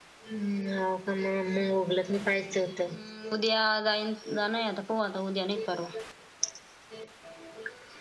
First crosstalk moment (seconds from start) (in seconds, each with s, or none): none